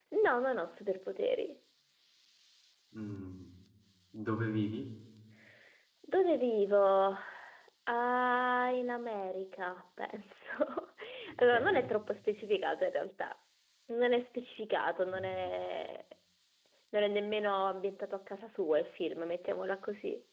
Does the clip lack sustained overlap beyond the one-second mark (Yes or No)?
Yes